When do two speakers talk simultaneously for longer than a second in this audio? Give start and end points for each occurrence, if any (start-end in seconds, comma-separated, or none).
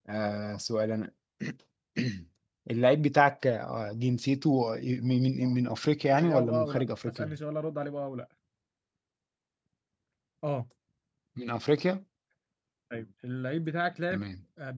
6.1-7.3